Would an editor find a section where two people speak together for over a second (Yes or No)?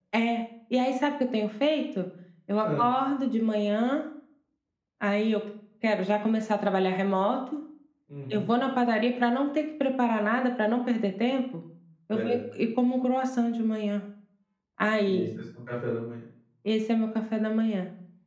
No